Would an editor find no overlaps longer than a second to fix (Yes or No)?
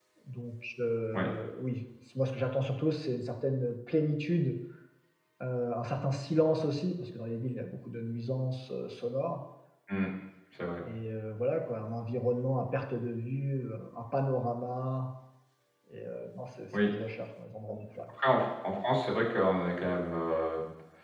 Yes